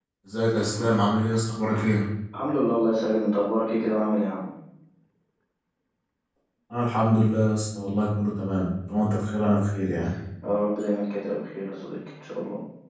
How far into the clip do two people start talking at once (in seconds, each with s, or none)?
none